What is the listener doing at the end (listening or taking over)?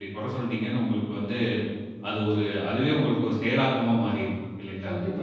taking over